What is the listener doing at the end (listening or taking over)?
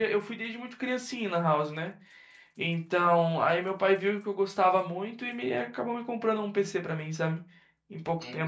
taking over